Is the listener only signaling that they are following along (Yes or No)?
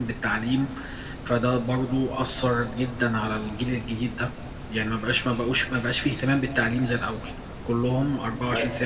Yes